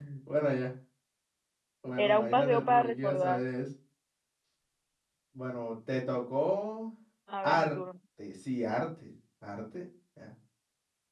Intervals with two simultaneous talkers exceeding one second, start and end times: 2.0-3.4

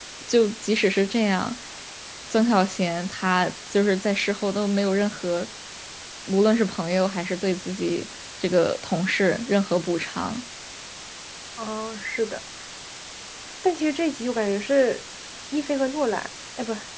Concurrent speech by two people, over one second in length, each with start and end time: none

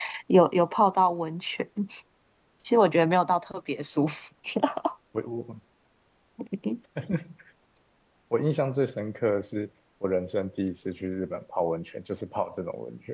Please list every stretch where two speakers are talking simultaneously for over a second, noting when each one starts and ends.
none

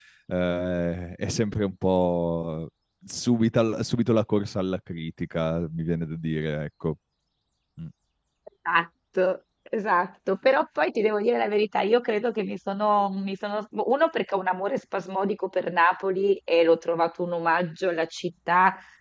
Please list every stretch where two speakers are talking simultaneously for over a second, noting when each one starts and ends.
none

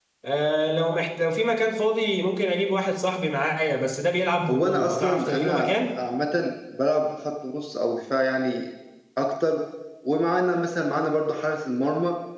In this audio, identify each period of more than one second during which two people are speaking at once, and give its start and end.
4.5-5.8

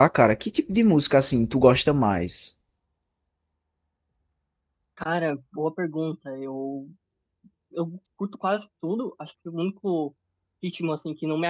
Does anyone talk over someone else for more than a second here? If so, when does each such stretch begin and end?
none

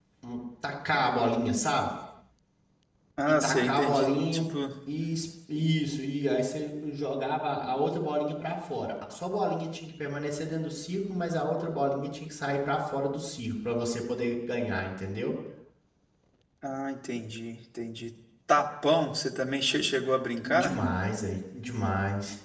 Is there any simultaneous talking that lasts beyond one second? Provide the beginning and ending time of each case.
3.2-4.6

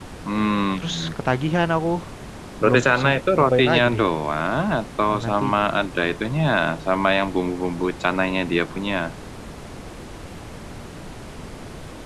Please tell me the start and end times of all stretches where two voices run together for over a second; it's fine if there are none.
2.6-4.0

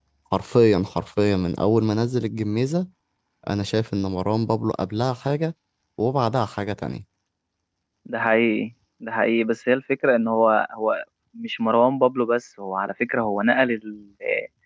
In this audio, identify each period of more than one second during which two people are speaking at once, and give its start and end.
none

